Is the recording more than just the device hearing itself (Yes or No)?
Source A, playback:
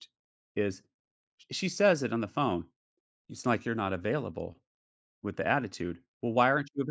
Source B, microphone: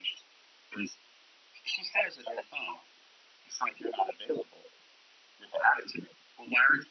No